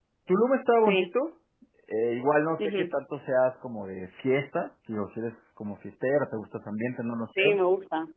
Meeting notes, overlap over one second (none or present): none